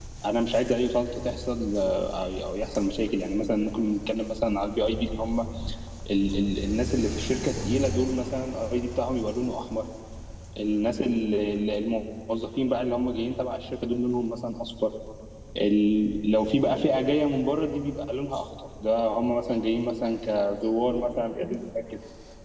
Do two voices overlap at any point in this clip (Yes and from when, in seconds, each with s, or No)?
No